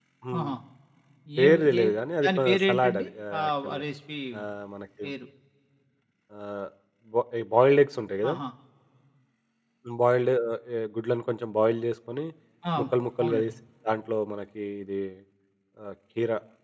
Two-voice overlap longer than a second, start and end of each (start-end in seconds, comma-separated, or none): 2.2-3.8